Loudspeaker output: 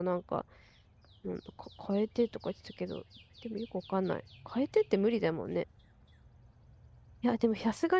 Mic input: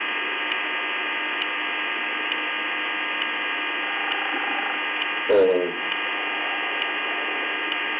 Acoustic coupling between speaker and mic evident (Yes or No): No